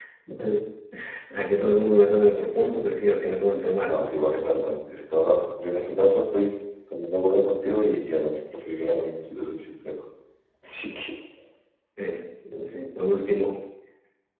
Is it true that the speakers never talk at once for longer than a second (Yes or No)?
Yes